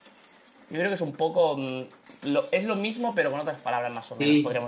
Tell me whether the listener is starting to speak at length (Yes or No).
Yes